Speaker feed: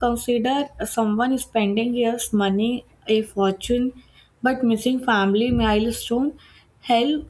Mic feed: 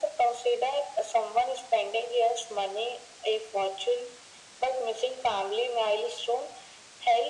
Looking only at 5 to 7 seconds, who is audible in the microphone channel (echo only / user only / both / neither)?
echo only